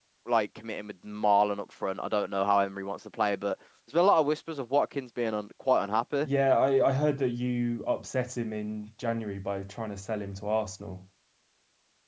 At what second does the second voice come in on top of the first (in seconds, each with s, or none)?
none